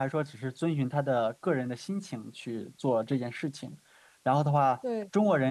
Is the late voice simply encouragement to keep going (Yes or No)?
Yes